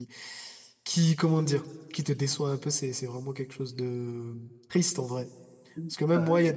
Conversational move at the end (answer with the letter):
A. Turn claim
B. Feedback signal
B